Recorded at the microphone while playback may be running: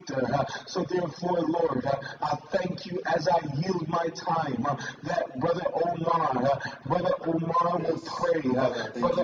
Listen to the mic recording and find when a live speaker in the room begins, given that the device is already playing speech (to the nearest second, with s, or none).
8 s